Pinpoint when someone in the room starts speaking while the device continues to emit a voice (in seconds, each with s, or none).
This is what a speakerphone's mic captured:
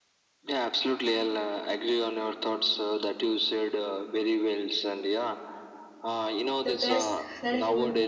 6.7 s